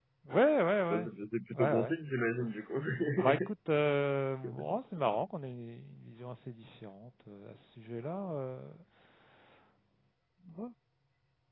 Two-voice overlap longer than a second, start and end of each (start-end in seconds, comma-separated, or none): none